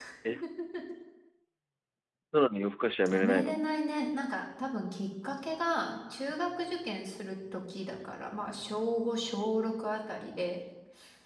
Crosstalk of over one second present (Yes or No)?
No